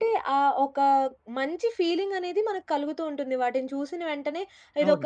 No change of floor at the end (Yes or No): Yes